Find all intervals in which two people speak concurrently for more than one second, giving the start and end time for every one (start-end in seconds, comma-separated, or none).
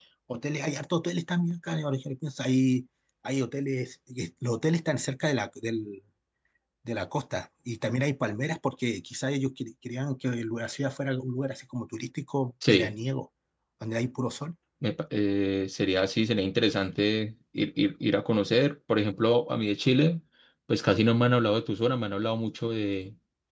none